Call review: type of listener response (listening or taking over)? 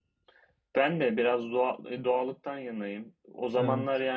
listening